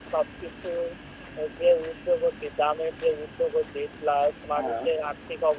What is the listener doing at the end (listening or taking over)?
listening